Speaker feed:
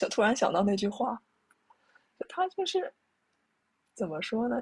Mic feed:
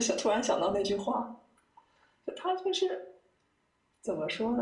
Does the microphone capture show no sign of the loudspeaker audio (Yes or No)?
No